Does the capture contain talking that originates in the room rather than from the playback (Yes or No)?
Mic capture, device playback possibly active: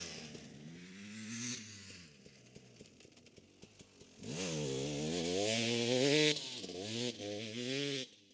No